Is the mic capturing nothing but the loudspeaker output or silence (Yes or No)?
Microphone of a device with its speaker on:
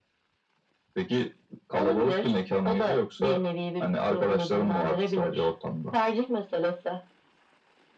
Yes